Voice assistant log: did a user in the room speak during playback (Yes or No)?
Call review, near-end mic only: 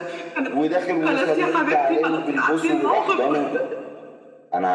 No